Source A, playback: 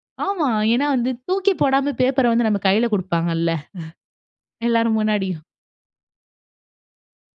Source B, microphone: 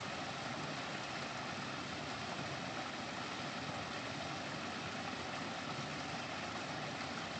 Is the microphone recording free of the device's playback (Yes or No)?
Yes